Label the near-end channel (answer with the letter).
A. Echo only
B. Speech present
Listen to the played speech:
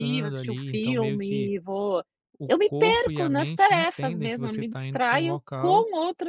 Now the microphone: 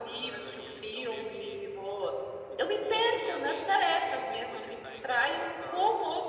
A